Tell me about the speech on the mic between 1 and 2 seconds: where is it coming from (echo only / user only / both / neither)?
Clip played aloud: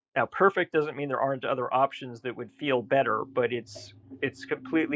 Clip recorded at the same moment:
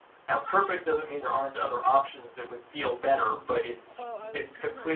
echo only